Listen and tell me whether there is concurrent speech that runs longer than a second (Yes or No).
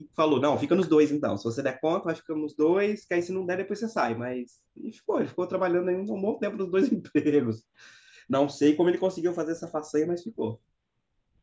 No